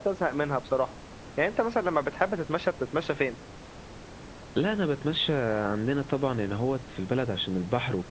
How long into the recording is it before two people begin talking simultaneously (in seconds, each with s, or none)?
none